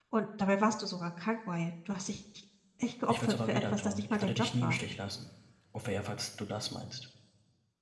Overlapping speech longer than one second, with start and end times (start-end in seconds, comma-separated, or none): 3.1-4.8